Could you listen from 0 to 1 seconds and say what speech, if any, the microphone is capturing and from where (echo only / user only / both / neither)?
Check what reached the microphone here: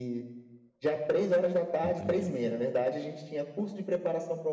echo only